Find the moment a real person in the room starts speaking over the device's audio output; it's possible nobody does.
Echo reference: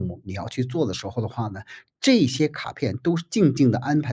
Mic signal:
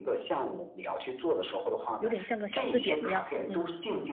2 s

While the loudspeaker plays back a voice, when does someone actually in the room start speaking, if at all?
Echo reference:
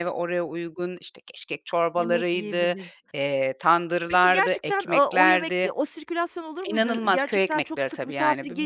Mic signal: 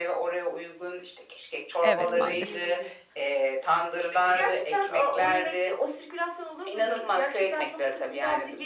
2 s

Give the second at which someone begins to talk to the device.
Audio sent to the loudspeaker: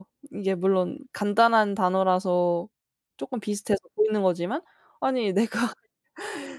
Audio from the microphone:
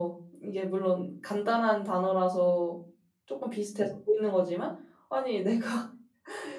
none

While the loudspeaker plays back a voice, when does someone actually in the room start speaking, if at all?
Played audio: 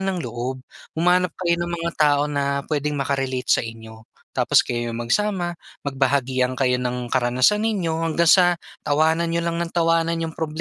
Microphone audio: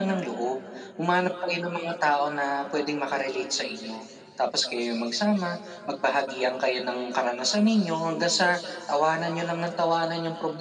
none

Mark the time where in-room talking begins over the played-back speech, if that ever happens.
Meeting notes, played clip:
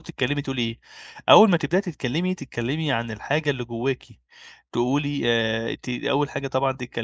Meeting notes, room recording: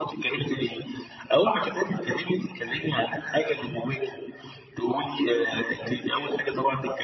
none

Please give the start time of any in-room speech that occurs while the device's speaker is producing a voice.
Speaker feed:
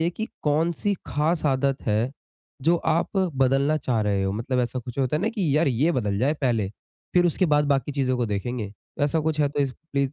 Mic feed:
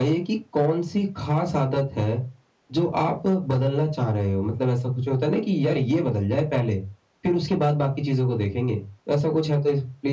none

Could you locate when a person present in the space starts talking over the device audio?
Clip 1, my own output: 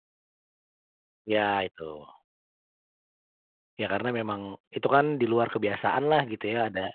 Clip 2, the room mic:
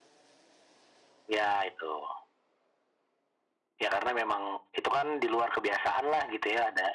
none

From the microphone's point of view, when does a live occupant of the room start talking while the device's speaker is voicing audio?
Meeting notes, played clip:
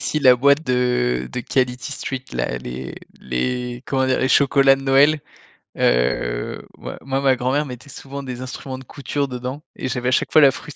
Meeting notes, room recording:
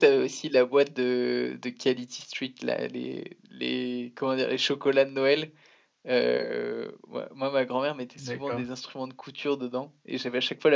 8 s

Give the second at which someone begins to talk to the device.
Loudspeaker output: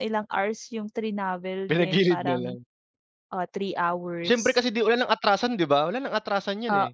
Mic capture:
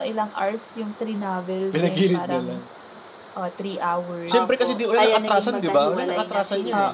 4 s

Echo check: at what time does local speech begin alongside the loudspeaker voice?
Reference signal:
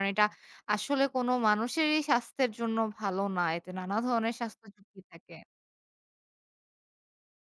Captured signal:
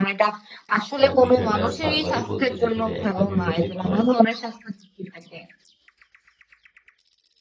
1 s

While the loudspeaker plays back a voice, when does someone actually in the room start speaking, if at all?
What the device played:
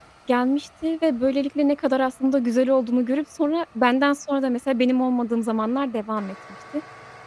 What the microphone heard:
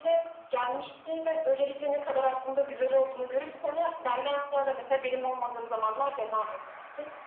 none

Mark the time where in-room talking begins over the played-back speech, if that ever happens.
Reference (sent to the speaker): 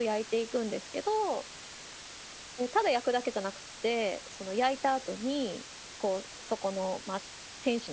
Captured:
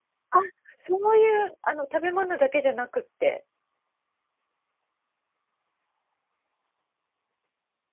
0 s

